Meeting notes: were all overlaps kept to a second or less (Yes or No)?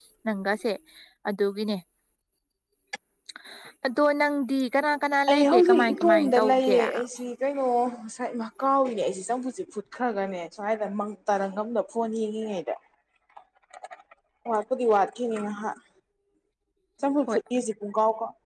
No